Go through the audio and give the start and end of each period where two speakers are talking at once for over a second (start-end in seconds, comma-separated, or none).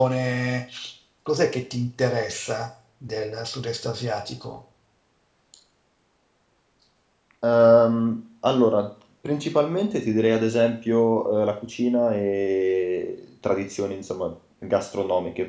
none